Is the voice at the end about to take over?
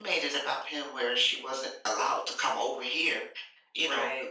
No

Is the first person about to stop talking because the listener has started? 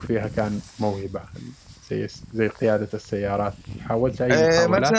Yes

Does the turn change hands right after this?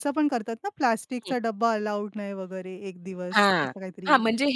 Yes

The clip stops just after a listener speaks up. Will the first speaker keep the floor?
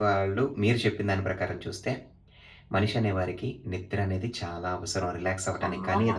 Yes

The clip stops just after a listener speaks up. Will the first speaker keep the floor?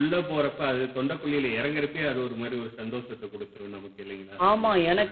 No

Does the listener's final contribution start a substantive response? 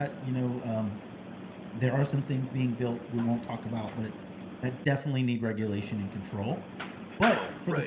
No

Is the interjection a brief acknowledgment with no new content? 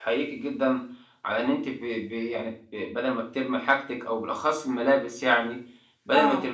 Yes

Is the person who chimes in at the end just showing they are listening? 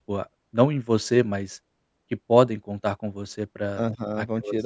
No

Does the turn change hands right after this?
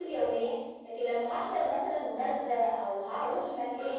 Yes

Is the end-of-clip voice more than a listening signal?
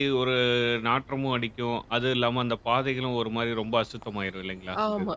Yes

